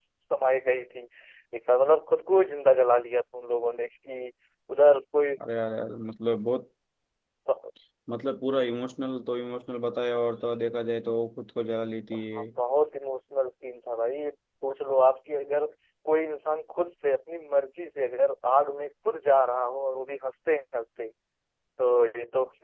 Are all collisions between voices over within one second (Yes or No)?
Yes